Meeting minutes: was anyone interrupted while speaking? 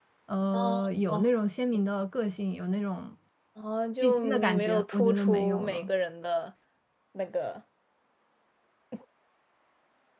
Yes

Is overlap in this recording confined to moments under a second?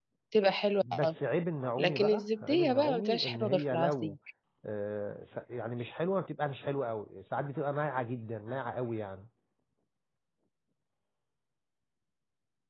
No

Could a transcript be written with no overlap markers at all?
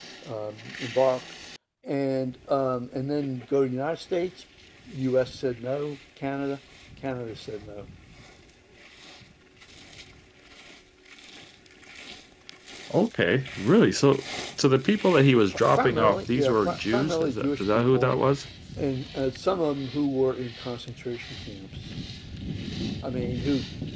No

